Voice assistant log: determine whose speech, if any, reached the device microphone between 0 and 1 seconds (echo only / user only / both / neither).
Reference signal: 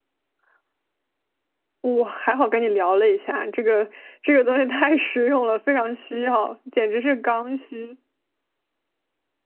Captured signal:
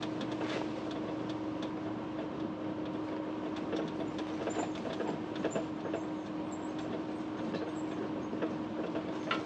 neither